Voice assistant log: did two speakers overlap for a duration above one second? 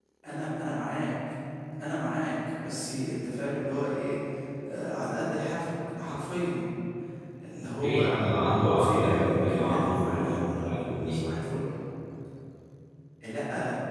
Yes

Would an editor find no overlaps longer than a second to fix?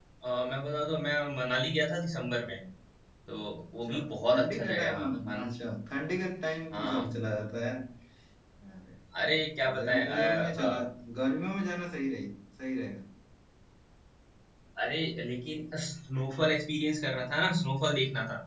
No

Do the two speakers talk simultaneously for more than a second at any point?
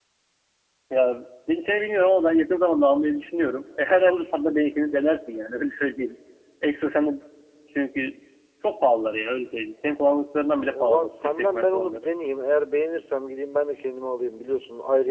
Yes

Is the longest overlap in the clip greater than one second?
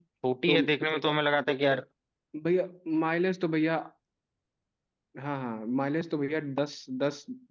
No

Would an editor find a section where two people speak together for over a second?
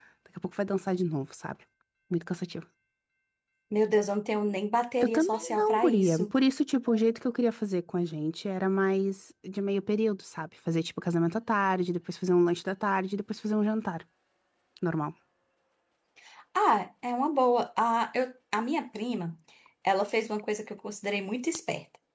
Yes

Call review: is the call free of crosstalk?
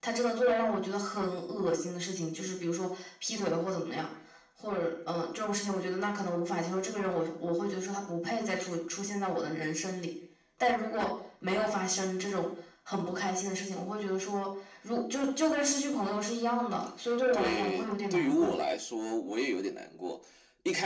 No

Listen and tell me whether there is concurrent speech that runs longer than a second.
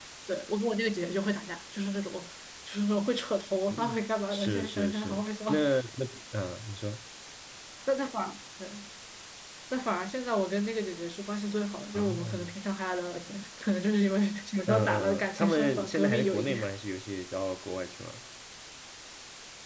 Yes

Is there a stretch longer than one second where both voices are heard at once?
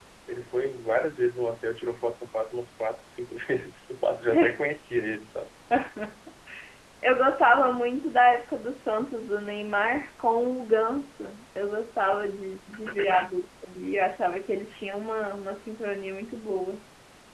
No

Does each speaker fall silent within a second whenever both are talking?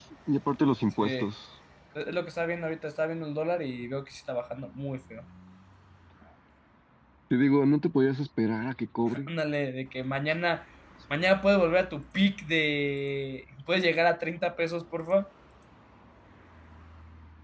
Yes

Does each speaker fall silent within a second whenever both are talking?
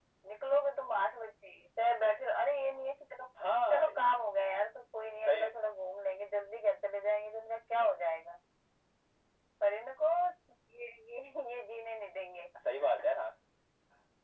Yes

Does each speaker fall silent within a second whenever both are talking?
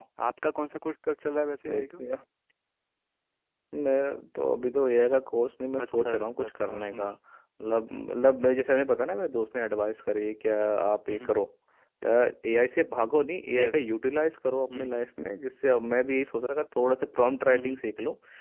No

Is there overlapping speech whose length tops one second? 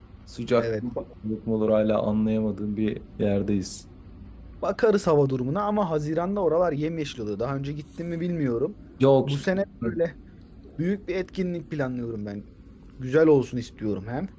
No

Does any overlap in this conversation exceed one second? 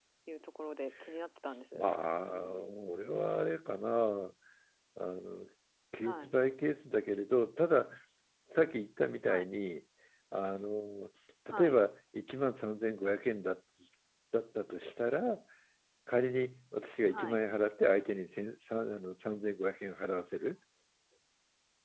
No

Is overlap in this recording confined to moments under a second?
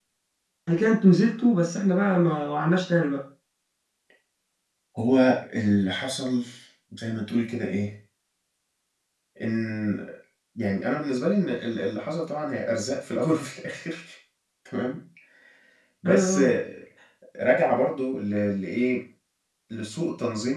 Yes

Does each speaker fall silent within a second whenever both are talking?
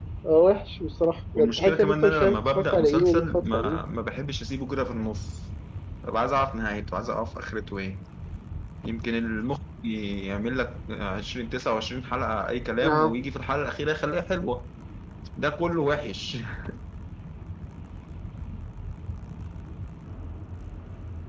No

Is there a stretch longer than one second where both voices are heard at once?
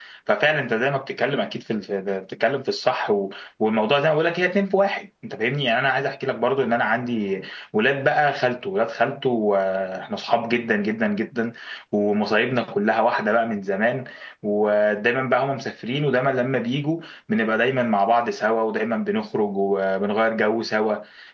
No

